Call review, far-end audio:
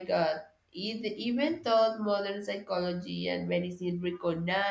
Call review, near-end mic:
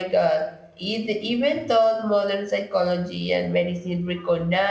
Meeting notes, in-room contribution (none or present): none